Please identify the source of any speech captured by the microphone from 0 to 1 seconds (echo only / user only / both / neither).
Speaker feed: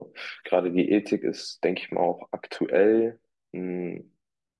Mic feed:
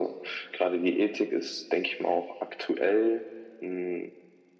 echo only